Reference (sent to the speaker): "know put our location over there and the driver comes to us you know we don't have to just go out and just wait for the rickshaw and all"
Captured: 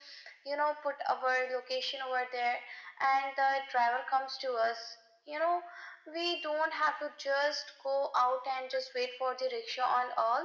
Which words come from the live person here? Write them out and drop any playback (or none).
none